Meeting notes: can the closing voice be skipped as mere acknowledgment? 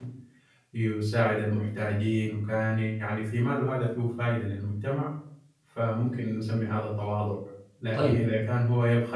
Yes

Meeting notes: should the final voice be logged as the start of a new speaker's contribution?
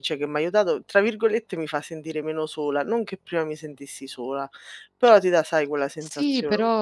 Yes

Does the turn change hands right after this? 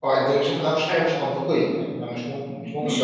Yes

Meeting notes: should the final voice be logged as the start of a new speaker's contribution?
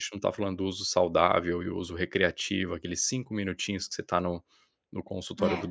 No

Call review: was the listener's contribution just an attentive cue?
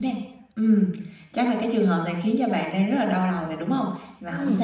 Yes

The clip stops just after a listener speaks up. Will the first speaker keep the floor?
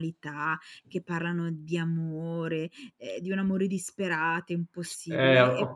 No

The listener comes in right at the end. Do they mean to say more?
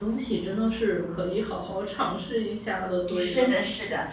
Yes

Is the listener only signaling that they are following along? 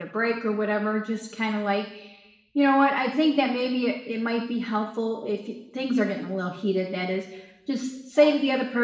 Yes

